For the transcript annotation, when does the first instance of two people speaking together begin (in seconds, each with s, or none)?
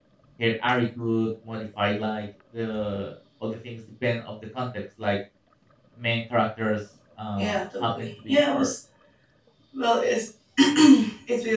7.4 s